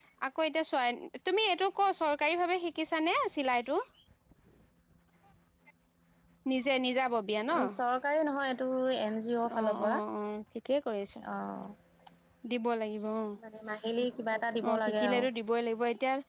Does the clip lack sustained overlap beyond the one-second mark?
Yes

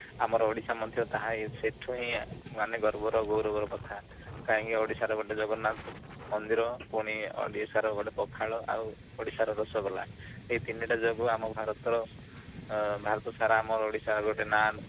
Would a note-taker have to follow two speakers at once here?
No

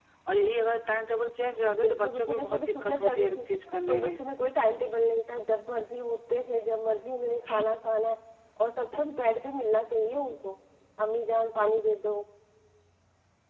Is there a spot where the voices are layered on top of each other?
Yes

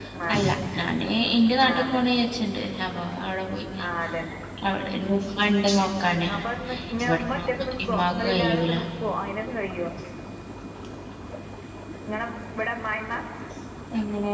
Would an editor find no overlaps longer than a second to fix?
No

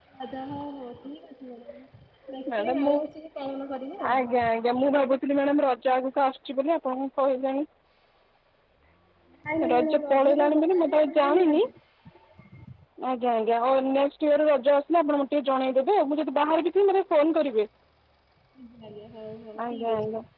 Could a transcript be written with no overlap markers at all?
No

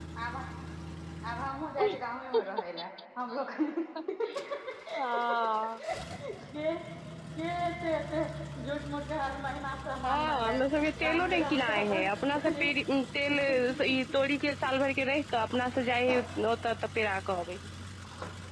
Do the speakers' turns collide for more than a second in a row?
Yes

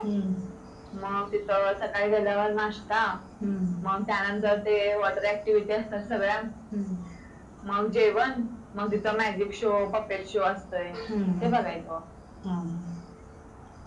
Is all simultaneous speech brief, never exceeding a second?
Yes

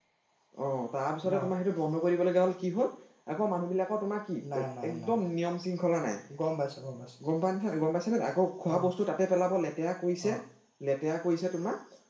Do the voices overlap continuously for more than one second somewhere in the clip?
No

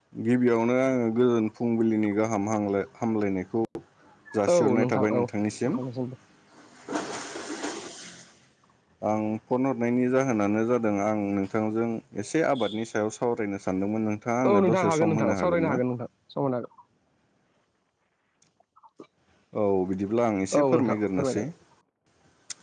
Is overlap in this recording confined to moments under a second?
No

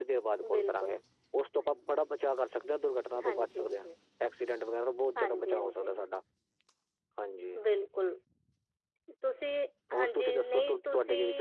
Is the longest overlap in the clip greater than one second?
Yes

